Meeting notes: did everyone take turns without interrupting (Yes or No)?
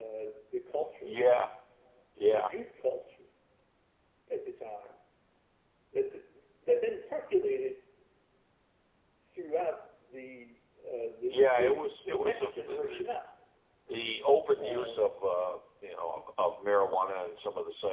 No